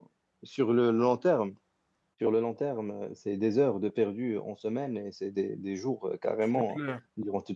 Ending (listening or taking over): listening